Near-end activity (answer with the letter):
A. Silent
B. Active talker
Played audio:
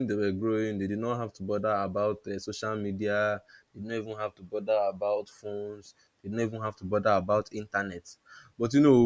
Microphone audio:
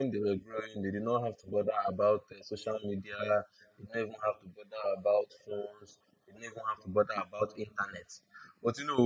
A